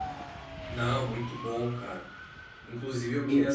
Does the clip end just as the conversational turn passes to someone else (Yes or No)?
No